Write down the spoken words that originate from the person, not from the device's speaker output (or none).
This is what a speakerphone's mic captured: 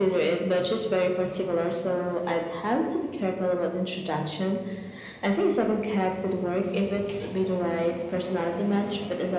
none